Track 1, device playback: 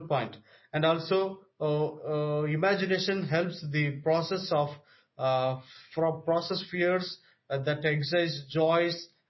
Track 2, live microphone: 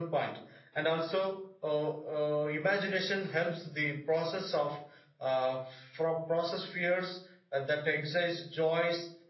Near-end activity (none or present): none